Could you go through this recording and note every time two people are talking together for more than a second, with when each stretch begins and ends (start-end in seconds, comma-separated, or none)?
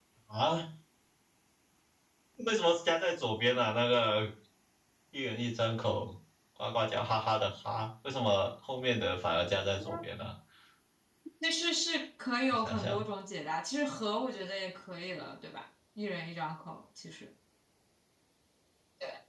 none